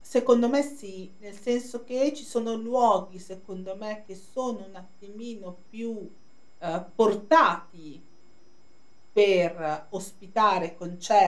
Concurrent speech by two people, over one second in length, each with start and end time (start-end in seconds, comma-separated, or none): none